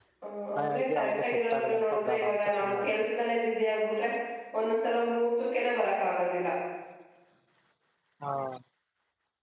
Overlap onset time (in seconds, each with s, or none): 0.6 s